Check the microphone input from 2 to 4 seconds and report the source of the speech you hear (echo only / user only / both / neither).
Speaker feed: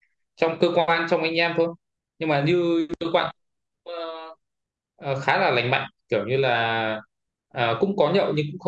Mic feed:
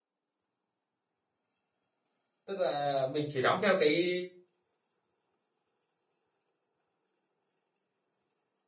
user only